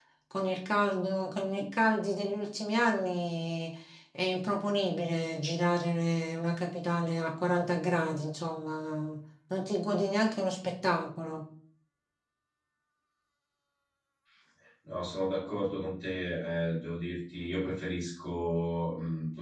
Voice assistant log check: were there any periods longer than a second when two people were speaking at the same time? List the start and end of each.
none

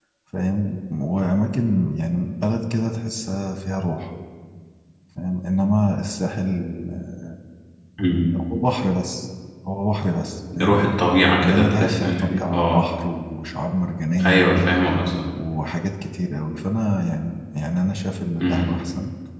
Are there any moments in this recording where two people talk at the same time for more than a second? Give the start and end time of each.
11.4-12.8

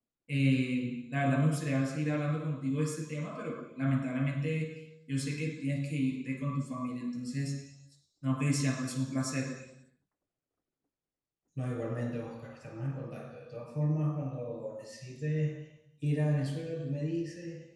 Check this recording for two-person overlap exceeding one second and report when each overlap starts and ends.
none

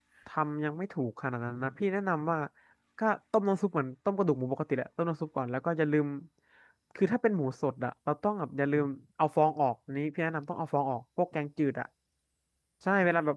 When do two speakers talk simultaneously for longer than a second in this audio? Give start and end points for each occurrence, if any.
none

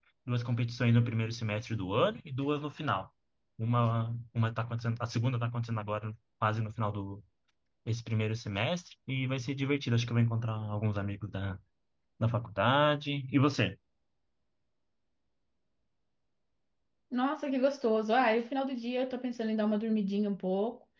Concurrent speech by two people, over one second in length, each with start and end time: none

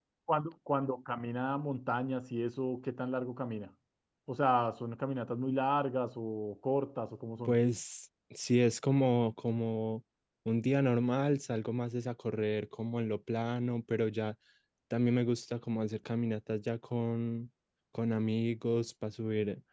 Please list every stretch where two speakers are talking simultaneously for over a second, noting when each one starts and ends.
none

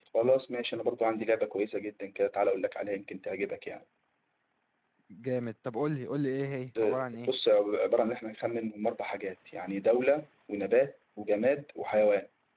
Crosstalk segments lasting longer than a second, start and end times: none

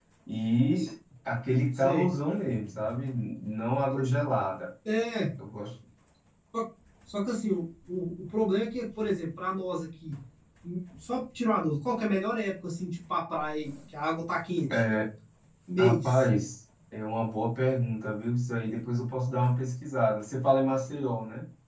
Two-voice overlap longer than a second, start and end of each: none

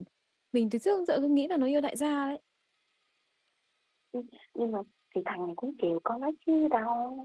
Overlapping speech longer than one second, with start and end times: none

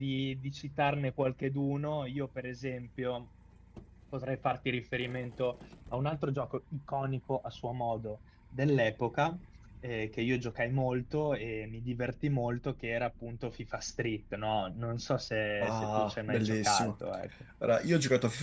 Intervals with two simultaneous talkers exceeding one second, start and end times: 15.6-16.9

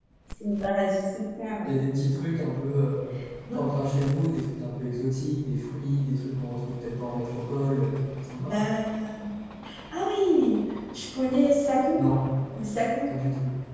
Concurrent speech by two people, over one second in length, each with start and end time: none

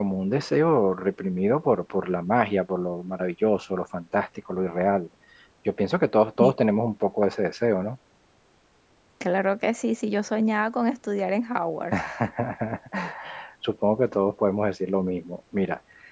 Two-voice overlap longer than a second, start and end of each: none

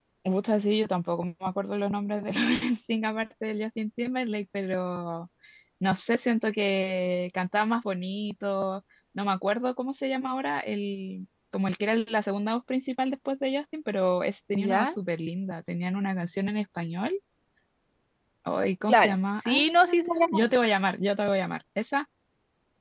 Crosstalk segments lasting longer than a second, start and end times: 18.9-20.2

